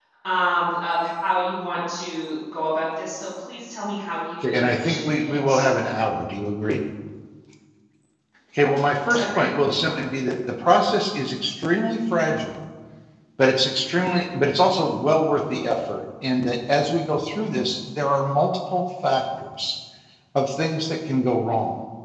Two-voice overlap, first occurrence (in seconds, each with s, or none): 4.4 s